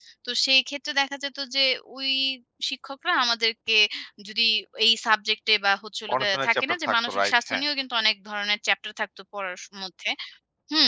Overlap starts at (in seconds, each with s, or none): 6.1 s